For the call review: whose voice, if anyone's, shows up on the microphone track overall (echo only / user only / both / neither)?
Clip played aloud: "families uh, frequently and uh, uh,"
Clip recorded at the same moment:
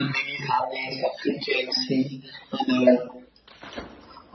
echo only